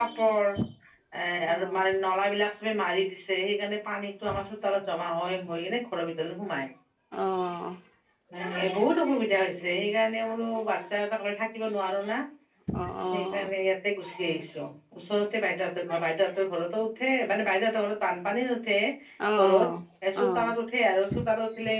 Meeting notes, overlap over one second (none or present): none